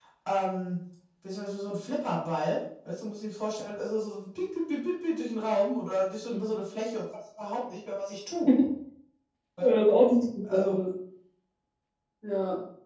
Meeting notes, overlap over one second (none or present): none